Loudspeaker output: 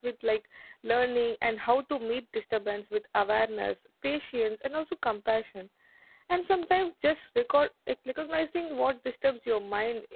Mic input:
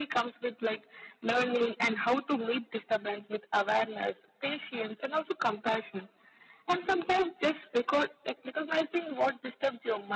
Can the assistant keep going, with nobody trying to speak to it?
Yes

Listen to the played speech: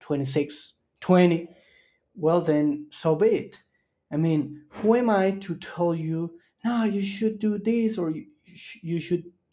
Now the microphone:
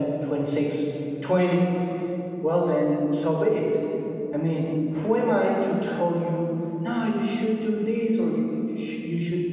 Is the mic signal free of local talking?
Yes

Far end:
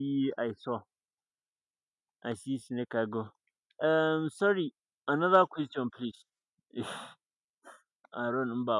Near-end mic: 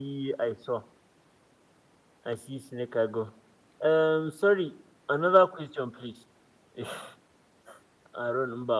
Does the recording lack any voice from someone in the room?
Yes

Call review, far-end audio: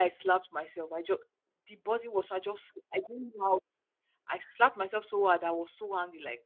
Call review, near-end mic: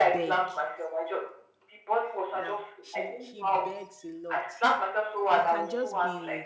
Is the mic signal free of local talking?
No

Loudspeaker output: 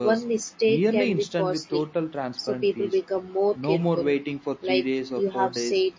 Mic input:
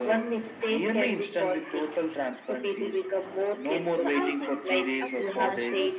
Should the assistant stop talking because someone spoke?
Yes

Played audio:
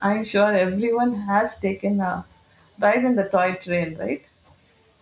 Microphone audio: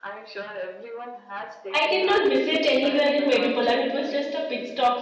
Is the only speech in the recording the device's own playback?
No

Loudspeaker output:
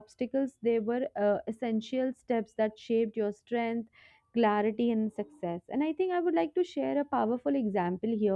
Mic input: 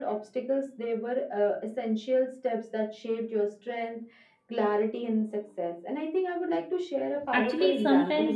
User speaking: Yes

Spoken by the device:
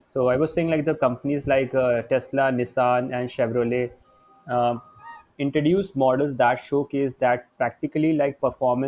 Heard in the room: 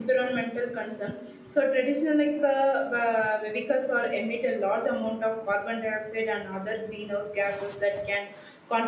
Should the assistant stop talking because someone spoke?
Yes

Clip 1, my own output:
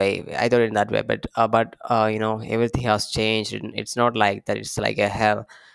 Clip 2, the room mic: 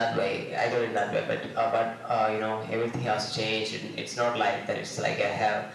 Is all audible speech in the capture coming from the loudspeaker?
Yes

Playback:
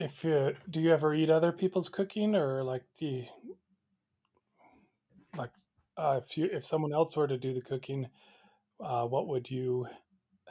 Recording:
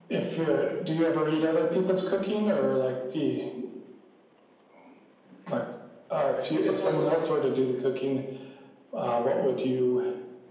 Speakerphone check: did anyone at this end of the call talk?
Yes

